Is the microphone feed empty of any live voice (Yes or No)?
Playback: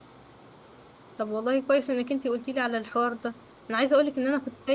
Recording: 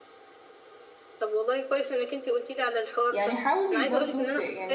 No